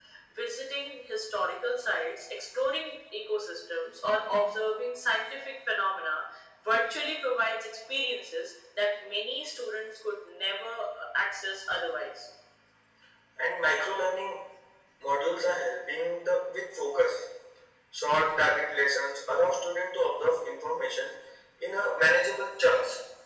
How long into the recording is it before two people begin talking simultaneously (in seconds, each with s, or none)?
none